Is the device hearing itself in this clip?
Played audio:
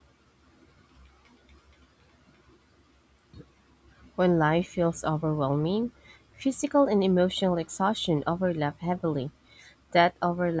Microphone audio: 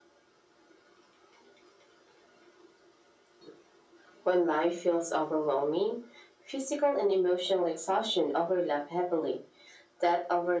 Yes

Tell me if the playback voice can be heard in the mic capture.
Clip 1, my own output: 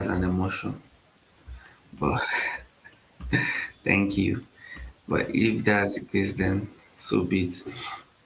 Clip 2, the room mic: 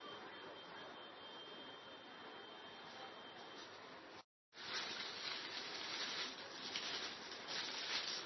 No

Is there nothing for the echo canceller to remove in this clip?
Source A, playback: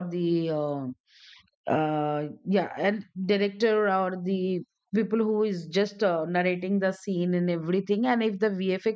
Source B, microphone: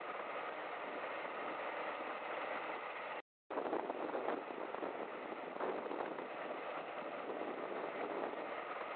Yes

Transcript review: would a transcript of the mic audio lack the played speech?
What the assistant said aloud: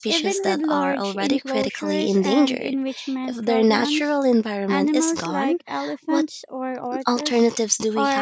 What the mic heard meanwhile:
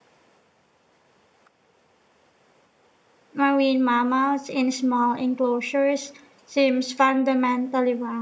Yes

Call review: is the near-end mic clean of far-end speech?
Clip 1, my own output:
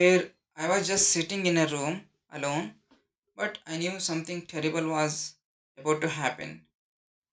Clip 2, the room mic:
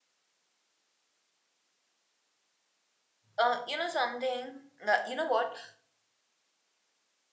Yes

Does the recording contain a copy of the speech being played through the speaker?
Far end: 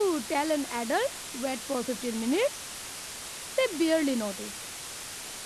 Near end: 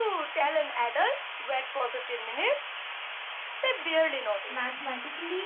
Yes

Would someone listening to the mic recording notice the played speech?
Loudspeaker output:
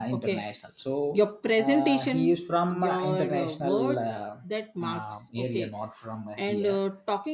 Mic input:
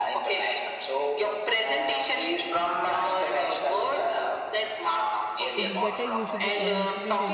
Yes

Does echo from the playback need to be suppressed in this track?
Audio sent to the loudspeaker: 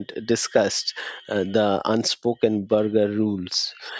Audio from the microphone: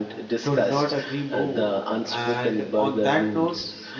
Yes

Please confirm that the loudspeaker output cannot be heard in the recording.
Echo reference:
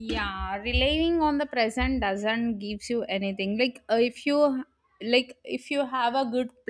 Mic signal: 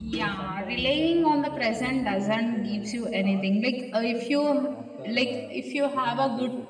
No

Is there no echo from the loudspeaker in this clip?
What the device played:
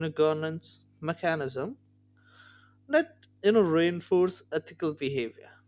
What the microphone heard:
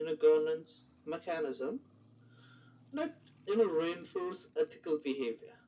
No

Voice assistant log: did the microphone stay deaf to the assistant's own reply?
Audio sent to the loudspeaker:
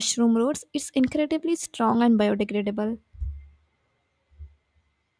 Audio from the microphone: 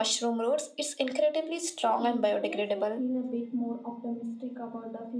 No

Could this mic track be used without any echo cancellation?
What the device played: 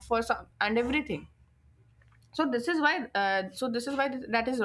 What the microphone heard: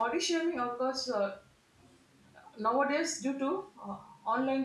Yes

